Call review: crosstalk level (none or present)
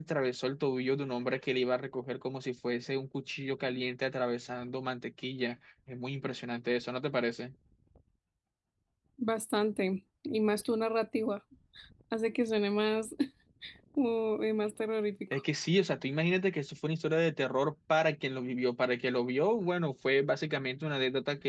none